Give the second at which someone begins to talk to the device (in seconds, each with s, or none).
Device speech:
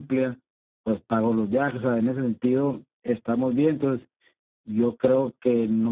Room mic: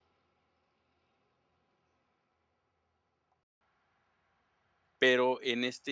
5.0 s